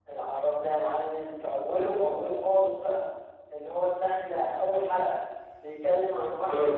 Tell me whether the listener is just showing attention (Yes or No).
Yes